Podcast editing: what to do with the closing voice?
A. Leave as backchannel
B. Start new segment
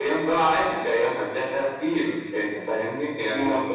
A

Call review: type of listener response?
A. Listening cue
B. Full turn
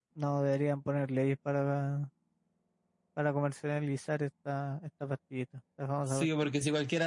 B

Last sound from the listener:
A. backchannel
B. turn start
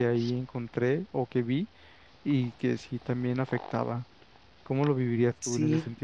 B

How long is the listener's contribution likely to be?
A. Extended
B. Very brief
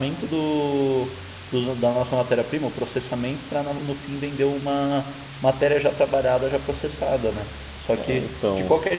B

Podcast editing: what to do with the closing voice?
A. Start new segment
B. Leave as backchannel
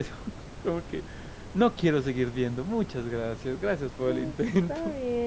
A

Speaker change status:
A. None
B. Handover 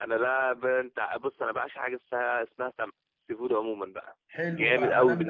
B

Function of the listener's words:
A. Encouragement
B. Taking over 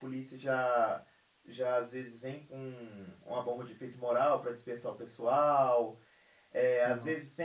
A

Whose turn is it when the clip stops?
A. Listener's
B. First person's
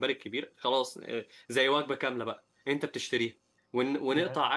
B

